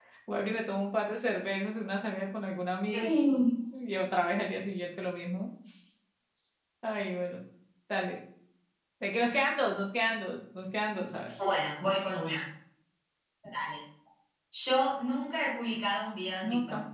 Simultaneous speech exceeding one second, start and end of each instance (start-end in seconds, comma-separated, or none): none